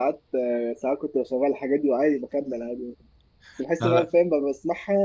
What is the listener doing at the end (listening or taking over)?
listening